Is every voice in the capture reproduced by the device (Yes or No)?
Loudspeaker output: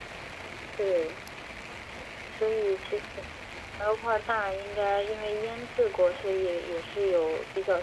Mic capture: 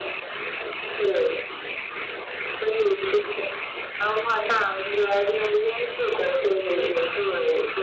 Yes